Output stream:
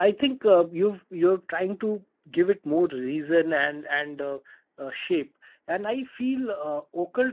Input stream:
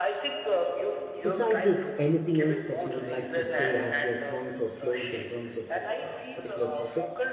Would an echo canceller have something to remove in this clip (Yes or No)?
Yes